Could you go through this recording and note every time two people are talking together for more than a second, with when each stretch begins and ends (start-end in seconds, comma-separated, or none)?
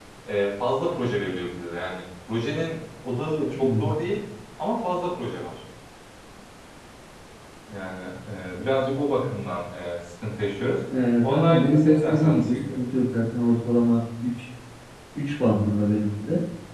11.3-12.8